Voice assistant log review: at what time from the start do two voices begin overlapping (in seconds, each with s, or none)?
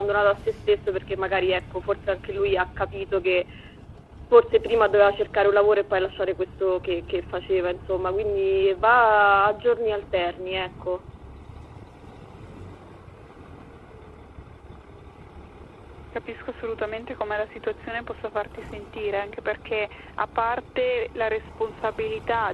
none